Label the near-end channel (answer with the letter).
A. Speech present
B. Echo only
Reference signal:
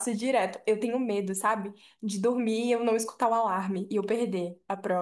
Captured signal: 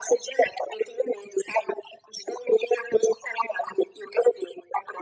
B